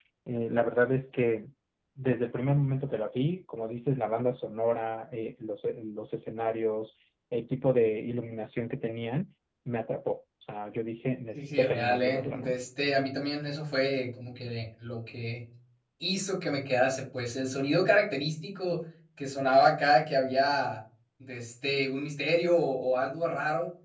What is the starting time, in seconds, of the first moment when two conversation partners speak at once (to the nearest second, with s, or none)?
11 s